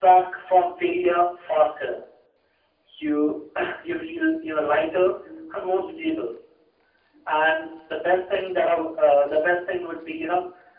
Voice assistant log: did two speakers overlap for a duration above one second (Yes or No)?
No